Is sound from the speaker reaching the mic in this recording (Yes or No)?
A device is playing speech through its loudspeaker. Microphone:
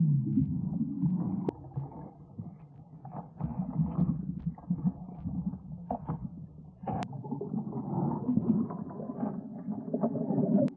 No